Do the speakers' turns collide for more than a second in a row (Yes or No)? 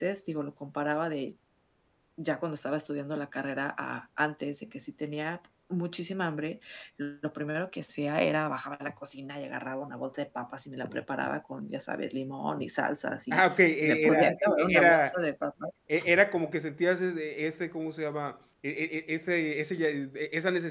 Yes